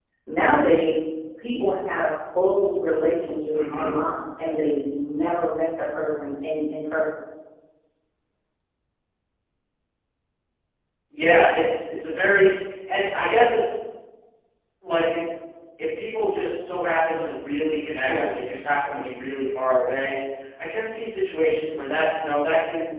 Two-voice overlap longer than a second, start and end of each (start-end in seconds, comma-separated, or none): none